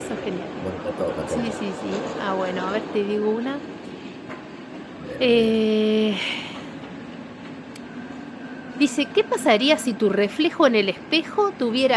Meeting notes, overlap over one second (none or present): none